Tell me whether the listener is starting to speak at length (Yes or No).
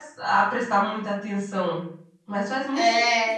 Yes